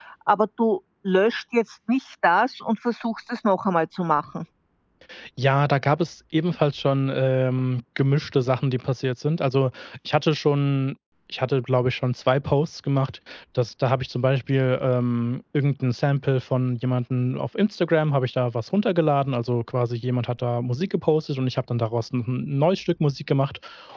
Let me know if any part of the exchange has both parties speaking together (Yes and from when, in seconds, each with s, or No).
No